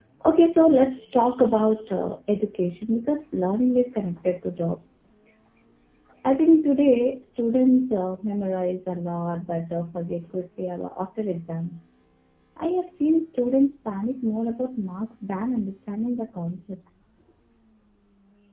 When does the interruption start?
none

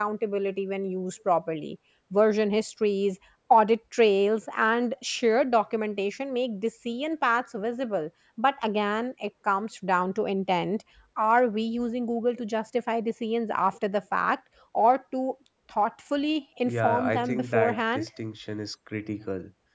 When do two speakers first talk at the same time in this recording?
16.6 s

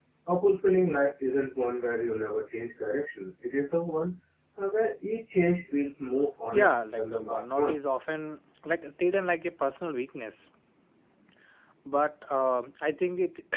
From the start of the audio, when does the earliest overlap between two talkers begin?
6.5 s

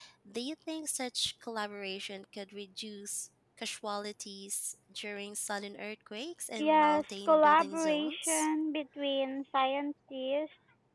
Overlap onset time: 6.6 s

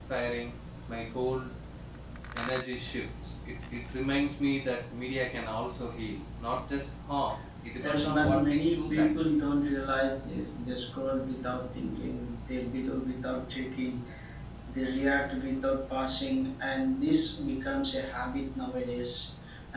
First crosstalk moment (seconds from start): 7.7 s

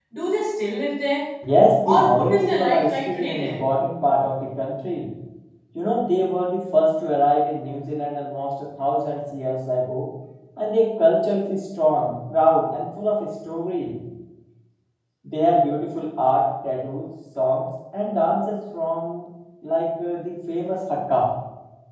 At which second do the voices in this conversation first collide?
1.9 s

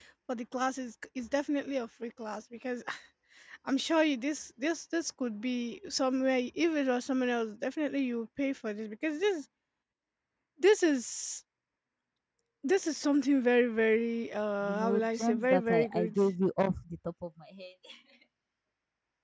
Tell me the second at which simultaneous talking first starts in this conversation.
14.6 s

